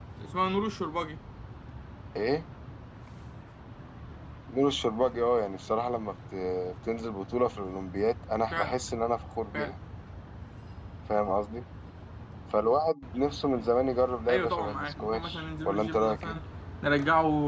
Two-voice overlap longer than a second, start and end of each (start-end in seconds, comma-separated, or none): 14.3-16.3